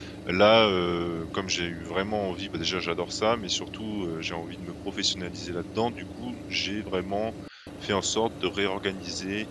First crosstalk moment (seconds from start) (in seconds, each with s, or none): none